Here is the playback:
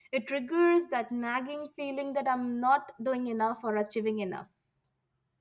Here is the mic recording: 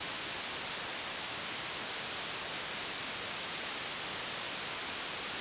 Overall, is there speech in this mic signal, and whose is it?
neither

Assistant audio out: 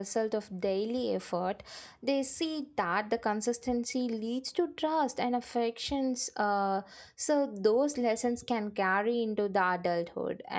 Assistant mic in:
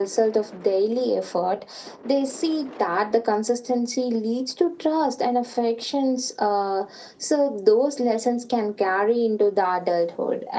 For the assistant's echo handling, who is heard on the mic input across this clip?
echo only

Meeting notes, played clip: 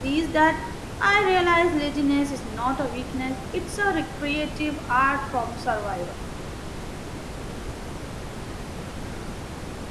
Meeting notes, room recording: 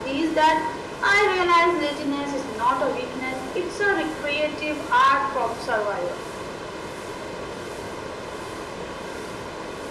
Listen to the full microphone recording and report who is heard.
echo only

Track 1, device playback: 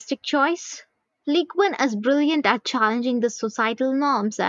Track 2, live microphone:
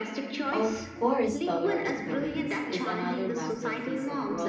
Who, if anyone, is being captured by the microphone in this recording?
both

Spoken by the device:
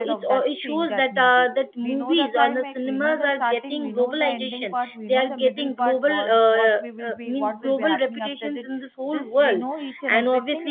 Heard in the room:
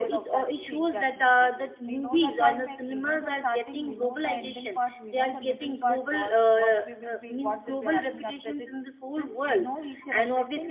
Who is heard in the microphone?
echo only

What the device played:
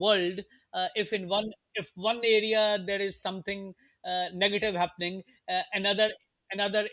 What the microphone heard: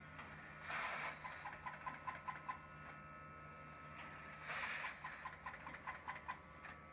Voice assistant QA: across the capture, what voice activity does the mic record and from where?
neither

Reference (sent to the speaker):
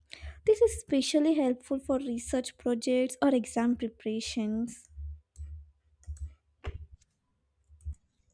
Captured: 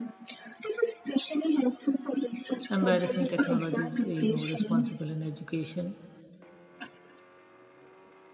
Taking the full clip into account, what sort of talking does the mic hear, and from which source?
both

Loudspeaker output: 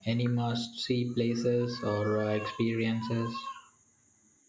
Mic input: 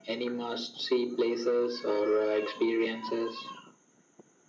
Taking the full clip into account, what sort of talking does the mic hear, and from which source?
echo only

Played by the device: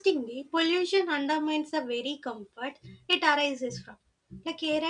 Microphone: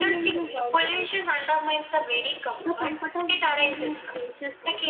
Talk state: both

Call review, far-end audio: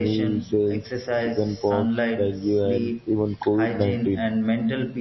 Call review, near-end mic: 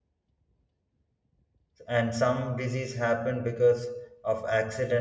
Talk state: user only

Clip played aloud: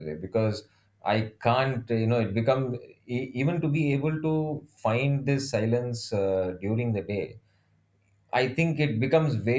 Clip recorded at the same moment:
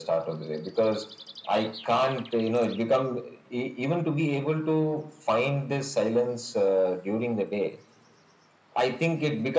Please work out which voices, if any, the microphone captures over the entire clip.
echo only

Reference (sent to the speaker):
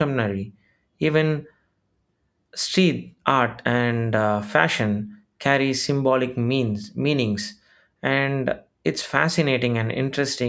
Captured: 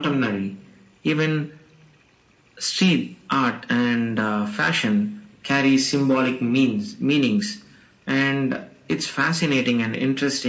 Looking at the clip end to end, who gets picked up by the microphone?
echo only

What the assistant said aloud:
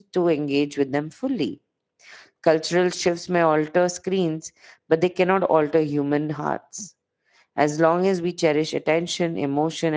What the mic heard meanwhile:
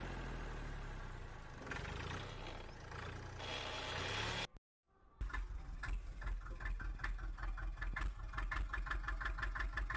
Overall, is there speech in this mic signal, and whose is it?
neither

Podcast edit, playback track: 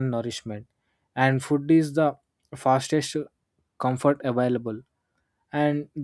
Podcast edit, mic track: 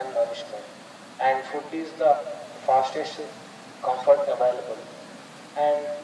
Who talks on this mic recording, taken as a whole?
echo only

